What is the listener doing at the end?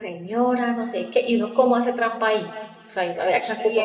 taking over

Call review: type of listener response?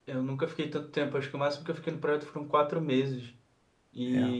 listening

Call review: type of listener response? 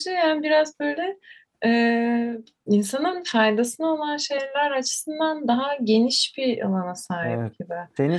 taking over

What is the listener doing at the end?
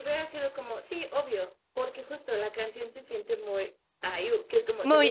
listening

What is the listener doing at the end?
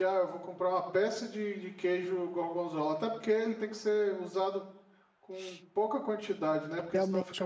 taking over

